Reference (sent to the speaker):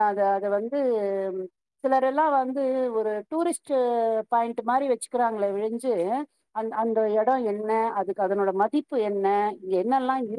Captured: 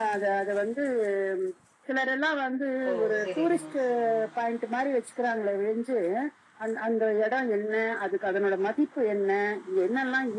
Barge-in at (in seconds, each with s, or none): 2.9 s